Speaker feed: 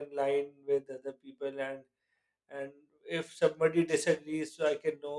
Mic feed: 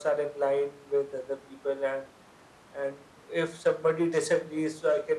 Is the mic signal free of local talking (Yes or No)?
Yes